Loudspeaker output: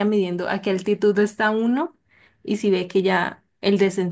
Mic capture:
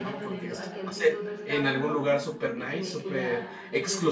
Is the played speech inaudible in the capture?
No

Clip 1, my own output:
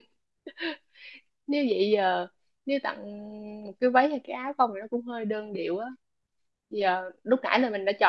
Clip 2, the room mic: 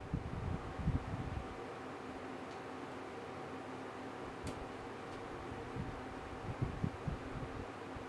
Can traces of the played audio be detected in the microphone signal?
No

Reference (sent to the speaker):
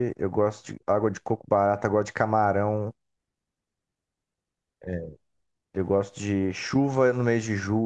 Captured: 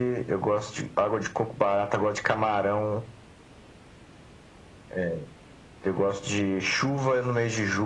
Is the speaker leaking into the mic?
Yes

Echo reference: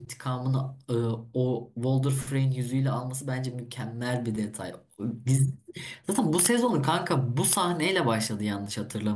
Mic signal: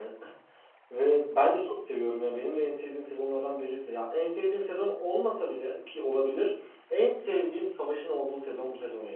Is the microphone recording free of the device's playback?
Yes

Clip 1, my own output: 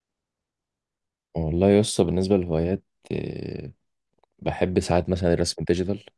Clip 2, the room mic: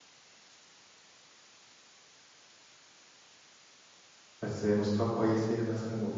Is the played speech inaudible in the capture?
Yes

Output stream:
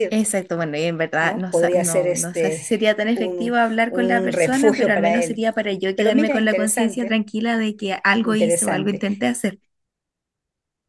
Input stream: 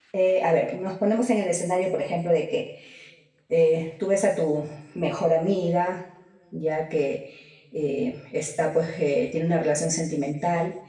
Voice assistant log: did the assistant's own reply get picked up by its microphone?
No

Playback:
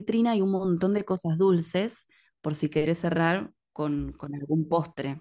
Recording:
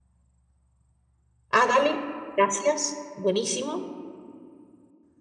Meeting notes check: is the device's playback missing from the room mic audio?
Yes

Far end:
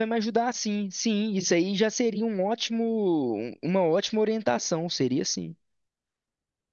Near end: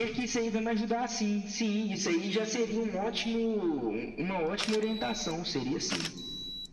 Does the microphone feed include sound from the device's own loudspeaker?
Yes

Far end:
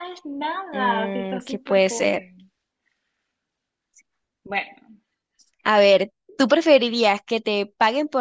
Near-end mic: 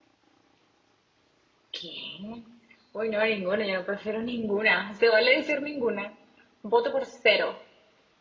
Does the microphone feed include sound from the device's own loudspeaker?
No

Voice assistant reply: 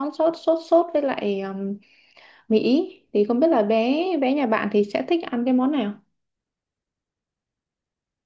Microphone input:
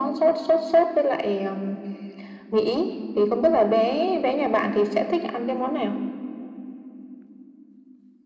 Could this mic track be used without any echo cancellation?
No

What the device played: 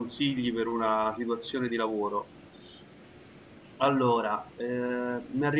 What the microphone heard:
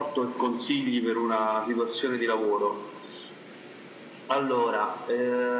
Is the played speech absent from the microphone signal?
No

